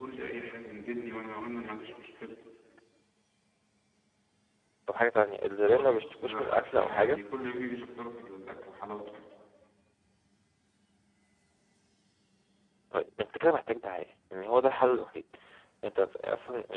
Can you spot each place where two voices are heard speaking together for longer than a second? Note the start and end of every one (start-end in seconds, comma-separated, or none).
5.6-7.2